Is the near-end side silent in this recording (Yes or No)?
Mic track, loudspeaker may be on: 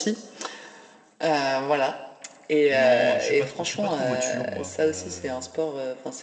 No